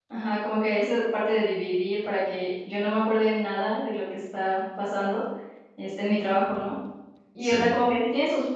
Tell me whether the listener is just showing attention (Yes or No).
Yes